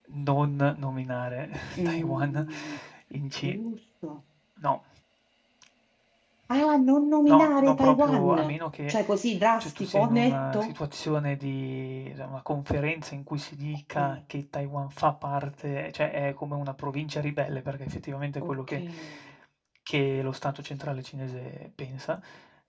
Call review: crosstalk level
present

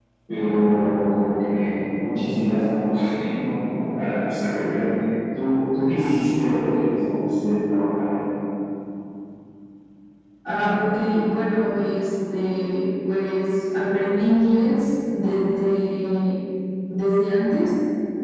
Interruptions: none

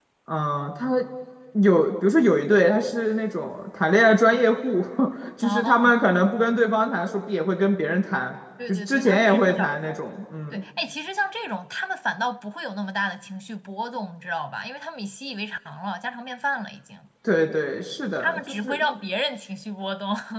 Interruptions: present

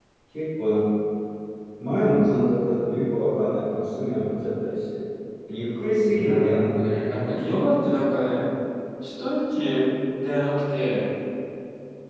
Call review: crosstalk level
present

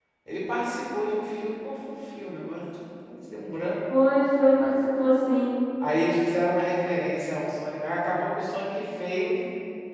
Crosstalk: none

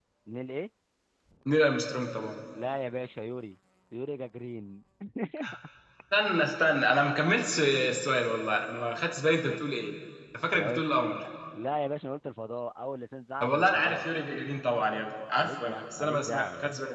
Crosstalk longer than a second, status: present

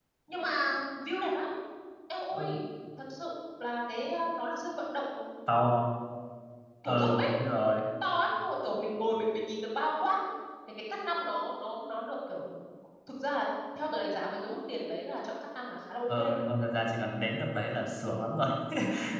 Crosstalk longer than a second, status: none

